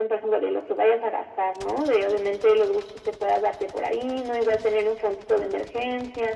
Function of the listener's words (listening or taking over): listening